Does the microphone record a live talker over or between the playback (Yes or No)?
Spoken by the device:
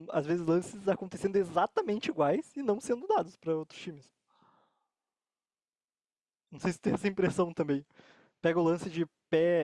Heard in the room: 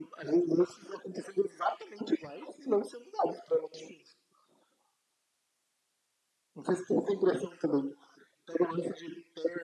No